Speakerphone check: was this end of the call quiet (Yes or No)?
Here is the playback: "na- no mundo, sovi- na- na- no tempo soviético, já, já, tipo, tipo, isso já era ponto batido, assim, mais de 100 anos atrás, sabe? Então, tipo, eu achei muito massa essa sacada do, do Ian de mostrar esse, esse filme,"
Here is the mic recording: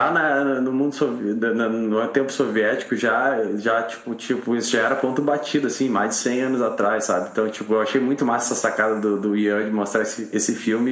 Yes